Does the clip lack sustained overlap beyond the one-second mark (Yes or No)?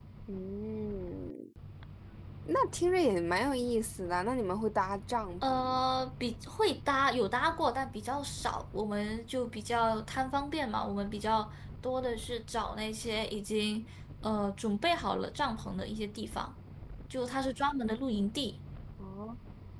Yes